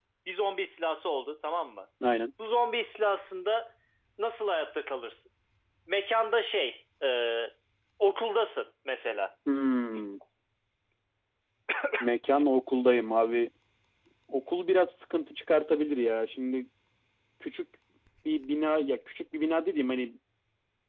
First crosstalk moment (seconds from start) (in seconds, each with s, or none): none